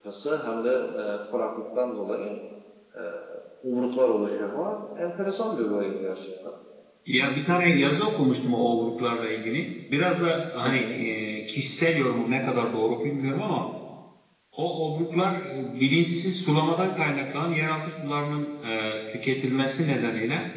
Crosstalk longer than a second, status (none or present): none